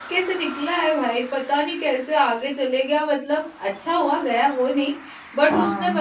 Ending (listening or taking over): listening